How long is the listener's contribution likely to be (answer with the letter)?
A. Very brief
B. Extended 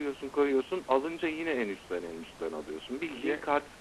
A